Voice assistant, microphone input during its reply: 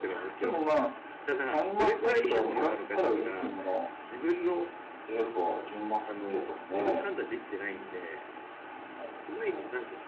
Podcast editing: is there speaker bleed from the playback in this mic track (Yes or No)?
Yes